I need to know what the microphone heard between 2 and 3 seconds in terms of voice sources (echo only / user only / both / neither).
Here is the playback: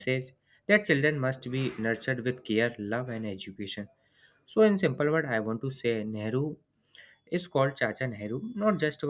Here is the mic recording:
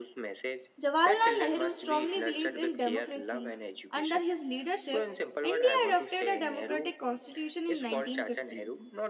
both